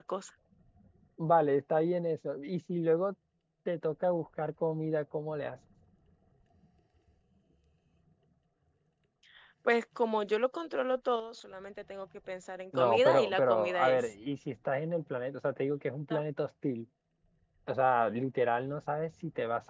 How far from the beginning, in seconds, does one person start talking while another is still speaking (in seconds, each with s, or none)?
12.7 s